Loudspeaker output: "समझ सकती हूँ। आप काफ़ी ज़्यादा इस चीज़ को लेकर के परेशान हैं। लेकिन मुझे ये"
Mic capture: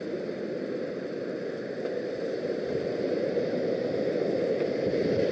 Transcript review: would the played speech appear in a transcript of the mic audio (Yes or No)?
No